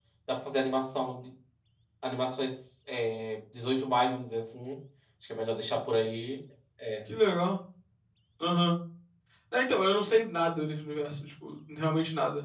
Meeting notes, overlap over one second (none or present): none